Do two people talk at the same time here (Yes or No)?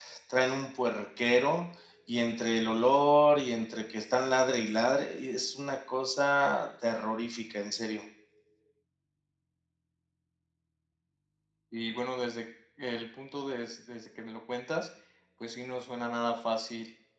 No